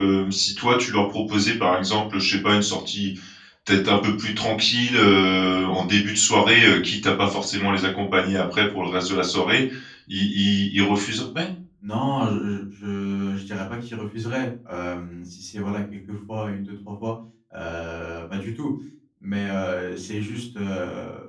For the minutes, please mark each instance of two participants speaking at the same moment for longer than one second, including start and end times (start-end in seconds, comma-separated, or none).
none